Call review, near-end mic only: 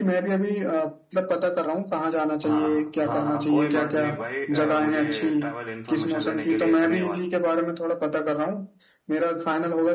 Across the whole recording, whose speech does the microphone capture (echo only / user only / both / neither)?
both